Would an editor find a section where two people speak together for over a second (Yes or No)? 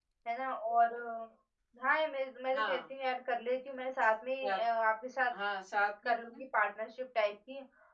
No